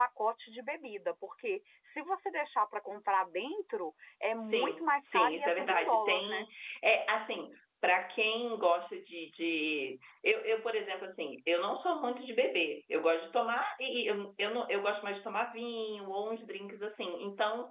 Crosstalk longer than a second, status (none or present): present